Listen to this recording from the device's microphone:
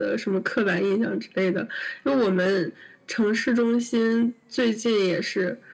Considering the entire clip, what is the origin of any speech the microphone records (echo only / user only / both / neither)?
echo only